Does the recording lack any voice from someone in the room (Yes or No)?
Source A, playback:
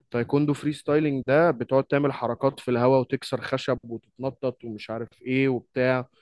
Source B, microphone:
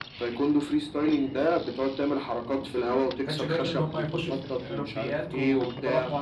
No